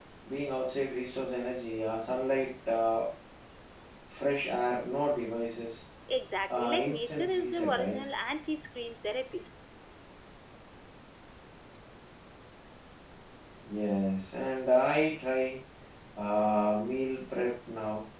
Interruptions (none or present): present